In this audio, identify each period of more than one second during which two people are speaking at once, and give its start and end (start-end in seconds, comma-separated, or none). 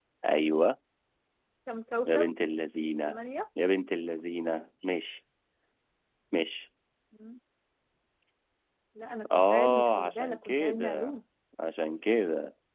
9.3-11.1